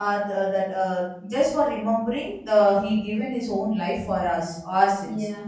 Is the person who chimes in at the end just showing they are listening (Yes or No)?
Yes